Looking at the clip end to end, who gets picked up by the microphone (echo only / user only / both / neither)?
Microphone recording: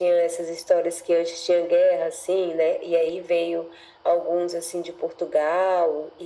echo only